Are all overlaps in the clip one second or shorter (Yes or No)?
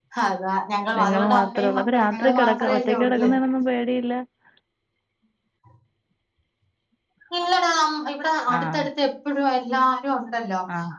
No